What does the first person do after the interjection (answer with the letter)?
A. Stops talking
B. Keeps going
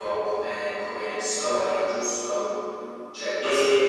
B